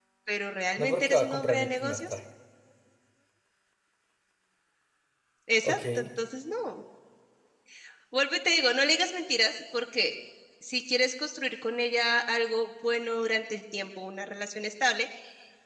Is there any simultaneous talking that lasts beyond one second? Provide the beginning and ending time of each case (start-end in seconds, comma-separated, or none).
0.8-2.2